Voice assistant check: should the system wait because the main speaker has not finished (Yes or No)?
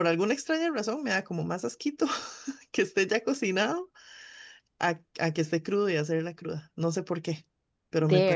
Yes